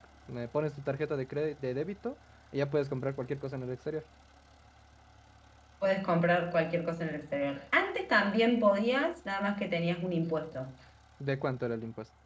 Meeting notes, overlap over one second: none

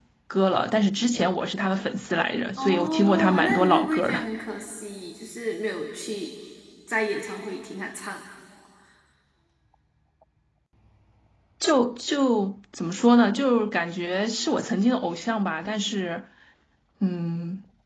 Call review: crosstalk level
present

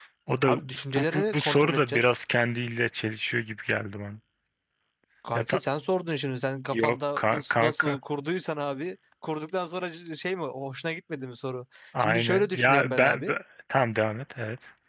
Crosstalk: present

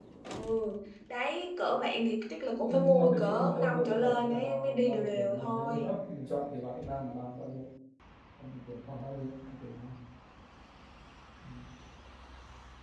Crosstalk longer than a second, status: present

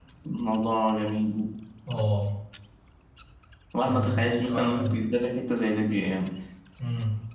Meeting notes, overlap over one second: present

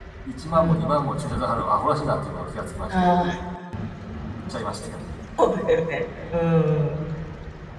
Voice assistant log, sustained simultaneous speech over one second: none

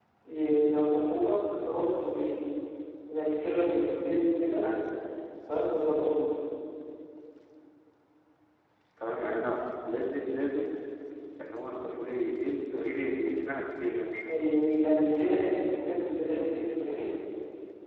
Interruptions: none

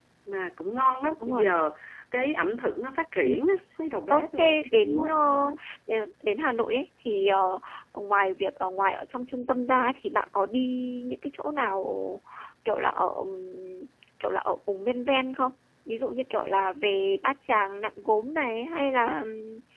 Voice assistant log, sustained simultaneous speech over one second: present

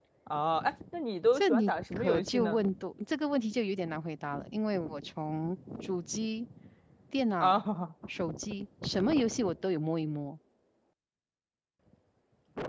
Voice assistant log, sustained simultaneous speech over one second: present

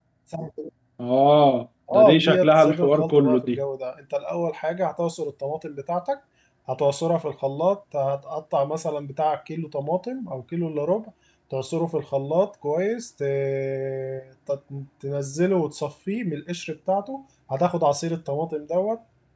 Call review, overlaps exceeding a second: present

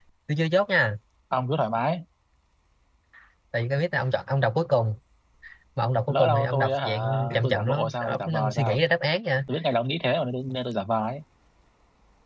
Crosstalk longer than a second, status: present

